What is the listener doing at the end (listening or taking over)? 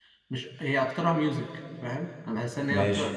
listening